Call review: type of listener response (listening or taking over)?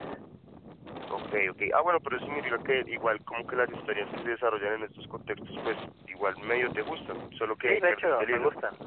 taking over